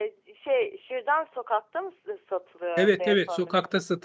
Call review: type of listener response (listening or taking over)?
taking over